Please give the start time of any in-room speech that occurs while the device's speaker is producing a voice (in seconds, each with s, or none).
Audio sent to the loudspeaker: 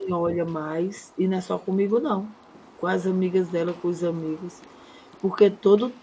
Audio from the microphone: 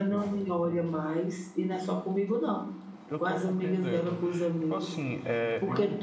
3.0 s